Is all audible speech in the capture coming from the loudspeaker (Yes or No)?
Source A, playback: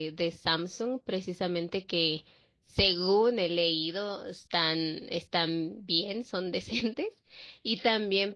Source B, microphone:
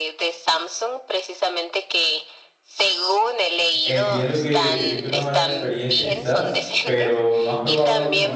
No